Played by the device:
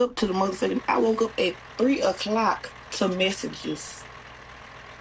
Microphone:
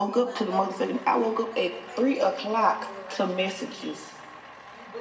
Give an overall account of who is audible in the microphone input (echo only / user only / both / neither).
both